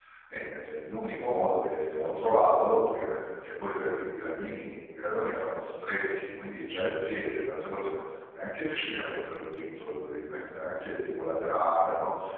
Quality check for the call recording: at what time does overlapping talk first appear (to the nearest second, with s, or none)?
none